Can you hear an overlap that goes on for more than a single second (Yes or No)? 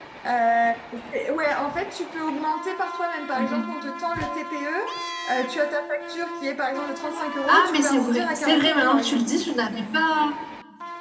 Yes